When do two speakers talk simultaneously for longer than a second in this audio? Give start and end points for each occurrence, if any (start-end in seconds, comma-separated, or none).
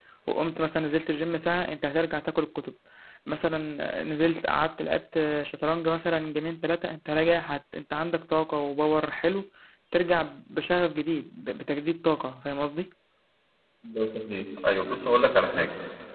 none